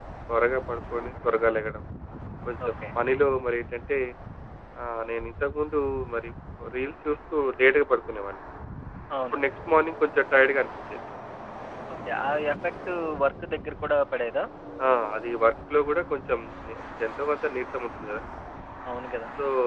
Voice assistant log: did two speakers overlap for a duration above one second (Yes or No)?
No